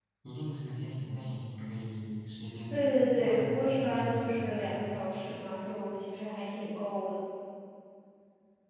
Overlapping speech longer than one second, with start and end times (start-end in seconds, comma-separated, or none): 2.7-4.9